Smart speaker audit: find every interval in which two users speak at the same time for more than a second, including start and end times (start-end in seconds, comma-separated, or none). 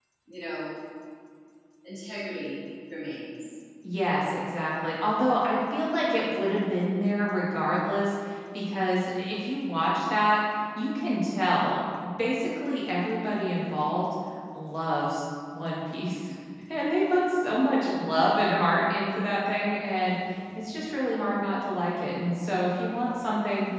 none